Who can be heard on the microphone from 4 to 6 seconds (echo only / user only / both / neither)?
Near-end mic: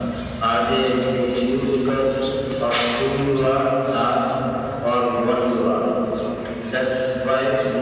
echo only